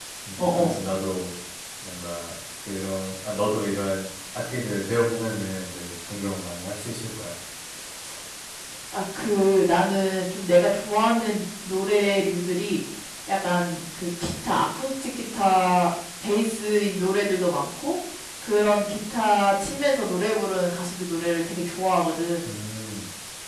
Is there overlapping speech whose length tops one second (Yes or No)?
No